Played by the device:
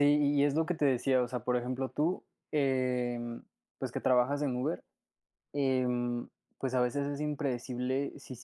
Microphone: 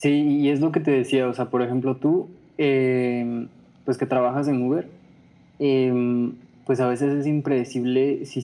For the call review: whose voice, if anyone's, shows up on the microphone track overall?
echo only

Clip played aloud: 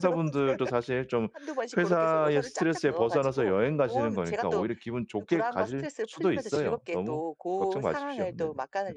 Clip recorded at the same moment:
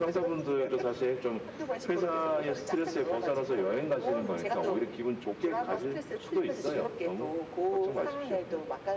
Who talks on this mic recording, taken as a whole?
echo only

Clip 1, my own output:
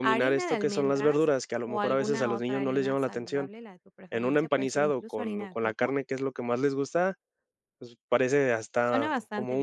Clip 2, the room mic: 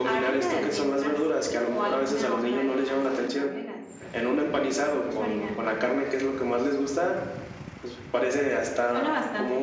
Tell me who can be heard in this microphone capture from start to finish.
echo only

